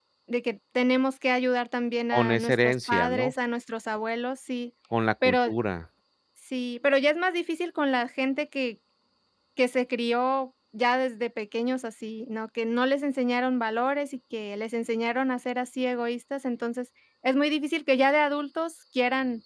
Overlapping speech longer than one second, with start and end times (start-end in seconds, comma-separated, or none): 2.1-3.3